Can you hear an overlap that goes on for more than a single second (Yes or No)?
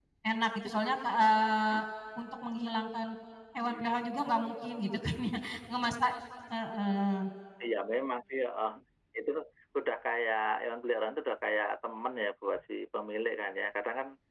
No